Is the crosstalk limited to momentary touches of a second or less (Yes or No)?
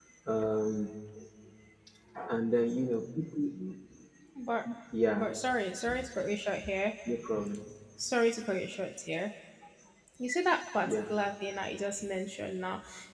Yes